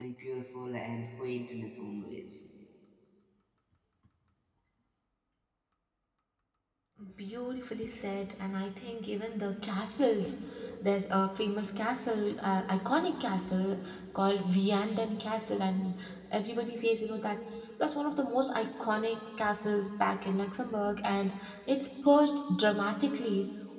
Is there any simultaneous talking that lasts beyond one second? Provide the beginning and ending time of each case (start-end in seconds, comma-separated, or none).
none